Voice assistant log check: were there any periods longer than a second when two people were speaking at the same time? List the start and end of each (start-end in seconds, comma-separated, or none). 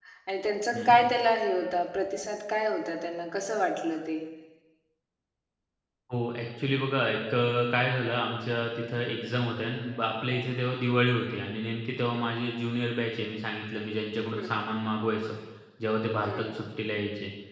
none